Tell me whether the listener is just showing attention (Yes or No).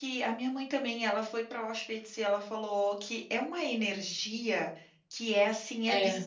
Yes